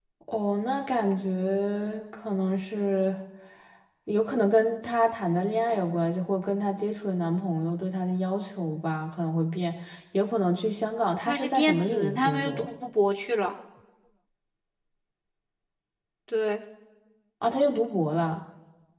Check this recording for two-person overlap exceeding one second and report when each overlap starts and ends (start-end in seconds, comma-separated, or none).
11.2-12.7